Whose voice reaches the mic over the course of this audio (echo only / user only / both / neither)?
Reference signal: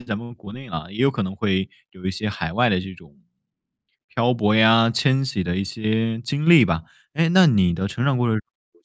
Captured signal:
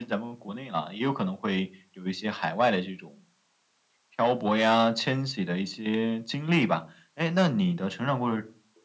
echo only